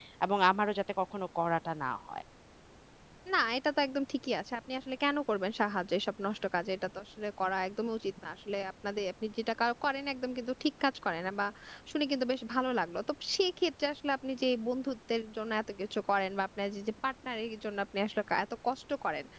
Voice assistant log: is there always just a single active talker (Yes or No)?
Yes